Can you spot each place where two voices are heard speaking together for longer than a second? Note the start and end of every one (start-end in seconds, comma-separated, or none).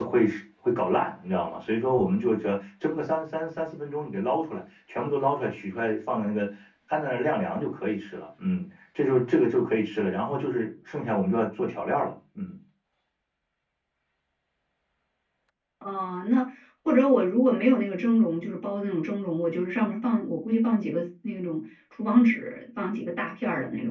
none